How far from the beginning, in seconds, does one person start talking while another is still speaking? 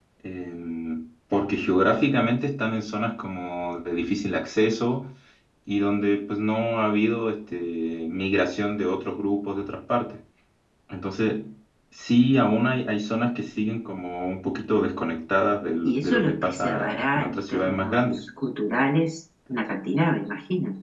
15.8 s

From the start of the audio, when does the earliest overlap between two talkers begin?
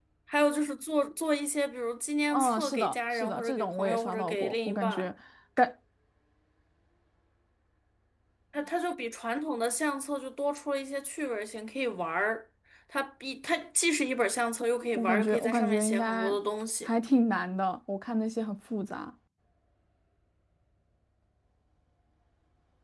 2.3 s

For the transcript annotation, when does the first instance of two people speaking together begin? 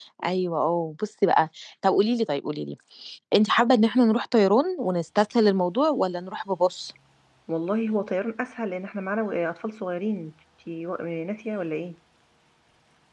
none

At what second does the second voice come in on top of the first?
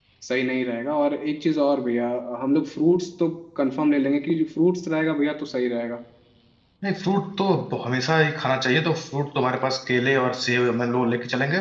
none

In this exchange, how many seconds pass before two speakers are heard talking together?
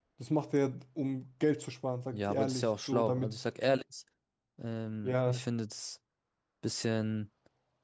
2.1 s

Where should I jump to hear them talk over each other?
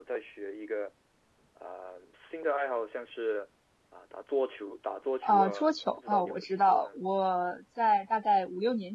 5.2 s

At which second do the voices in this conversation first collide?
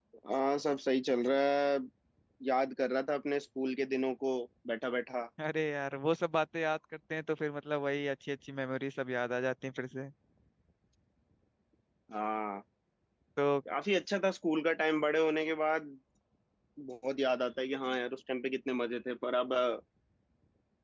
none

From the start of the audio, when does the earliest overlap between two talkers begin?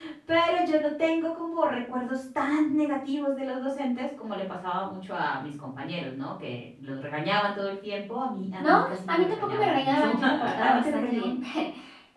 8.6 s

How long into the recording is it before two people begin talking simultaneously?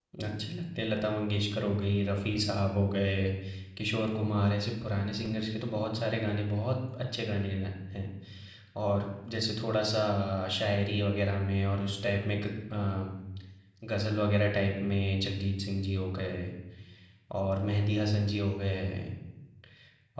none

